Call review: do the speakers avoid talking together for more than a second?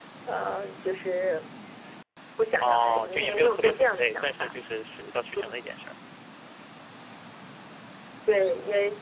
No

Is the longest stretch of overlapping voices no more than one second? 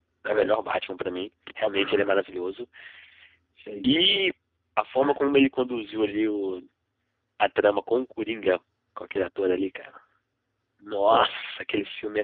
Yes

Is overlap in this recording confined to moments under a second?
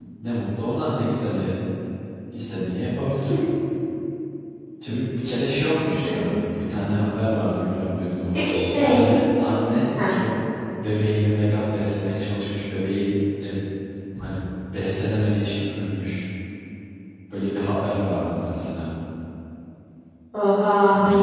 Yes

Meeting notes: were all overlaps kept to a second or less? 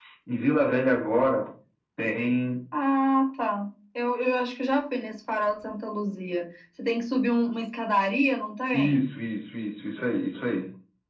Yes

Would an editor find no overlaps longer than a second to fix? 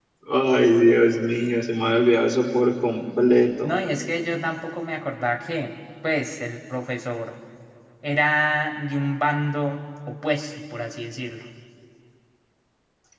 Yes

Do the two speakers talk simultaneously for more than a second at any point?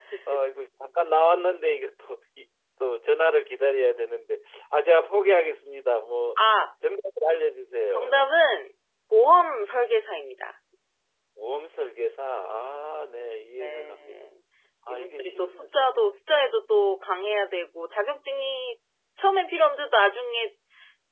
Yes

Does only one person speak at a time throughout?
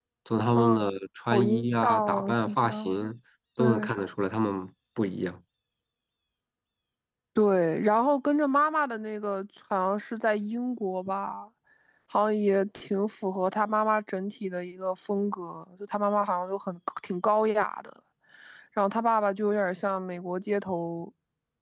No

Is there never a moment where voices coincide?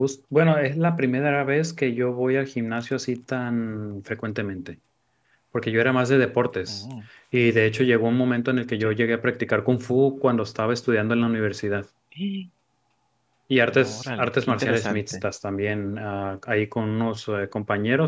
No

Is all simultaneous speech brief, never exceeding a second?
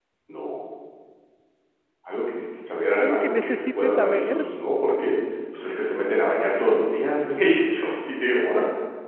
No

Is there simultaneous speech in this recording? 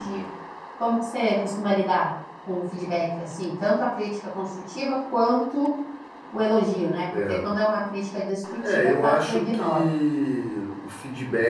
Yes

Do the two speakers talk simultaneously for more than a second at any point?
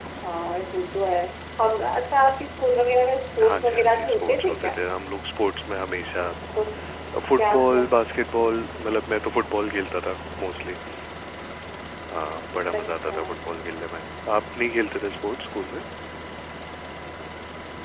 Yes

